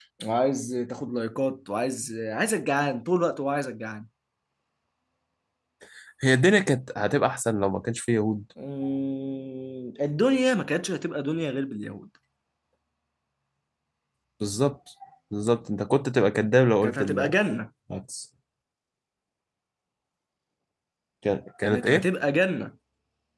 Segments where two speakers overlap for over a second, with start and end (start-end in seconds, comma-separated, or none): none